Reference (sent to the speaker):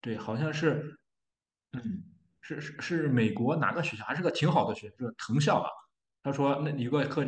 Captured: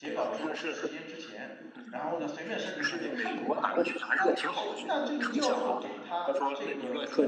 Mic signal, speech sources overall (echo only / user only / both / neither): both